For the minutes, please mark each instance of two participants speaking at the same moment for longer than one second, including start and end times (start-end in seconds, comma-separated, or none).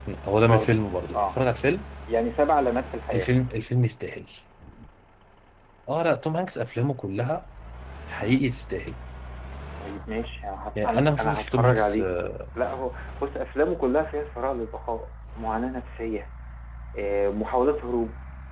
10.8-12.0